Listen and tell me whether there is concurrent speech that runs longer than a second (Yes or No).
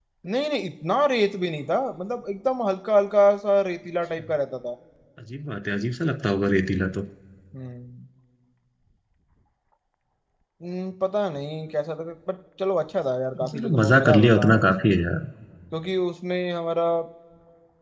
Yes